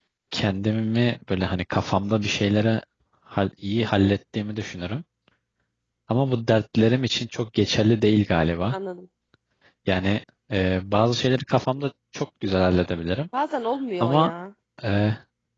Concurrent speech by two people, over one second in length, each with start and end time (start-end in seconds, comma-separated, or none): none